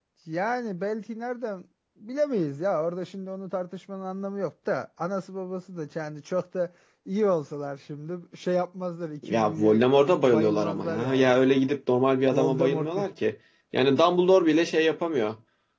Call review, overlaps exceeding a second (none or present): present